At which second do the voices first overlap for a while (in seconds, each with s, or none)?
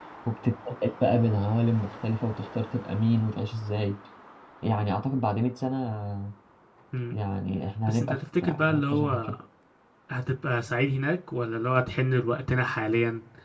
7.9 s